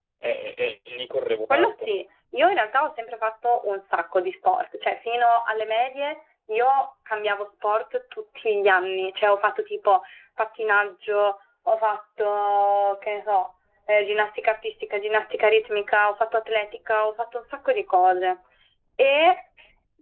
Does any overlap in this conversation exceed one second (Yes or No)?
No